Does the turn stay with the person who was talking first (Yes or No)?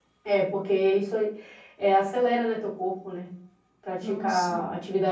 Yes